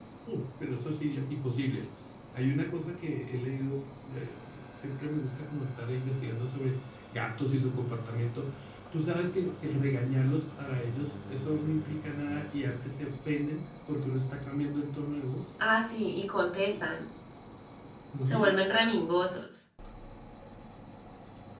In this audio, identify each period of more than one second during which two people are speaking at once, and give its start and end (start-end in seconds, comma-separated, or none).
none